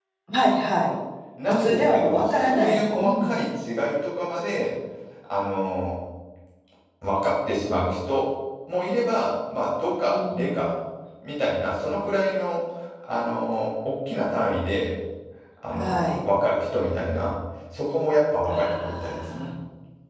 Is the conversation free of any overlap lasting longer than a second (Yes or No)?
No